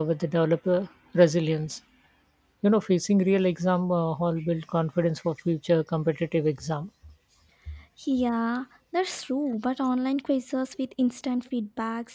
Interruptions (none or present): none